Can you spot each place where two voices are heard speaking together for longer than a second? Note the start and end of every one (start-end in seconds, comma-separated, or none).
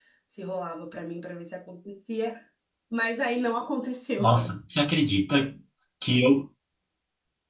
none